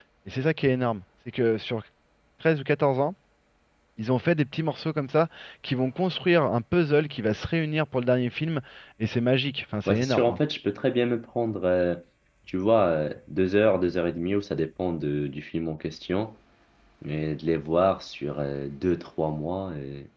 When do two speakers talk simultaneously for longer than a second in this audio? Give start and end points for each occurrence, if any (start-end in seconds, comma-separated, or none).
none